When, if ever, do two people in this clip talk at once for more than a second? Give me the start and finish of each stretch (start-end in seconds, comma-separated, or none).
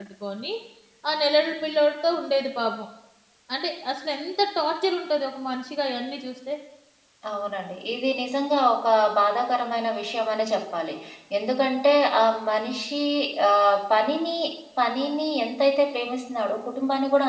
none